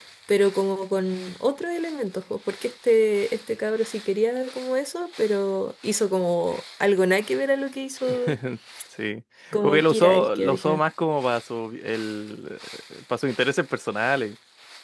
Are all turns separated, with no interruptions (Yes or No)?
No